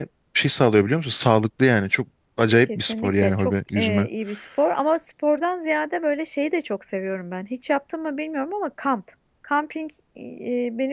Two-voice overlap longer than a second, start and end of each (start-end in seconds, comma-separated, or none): 2.8-4.1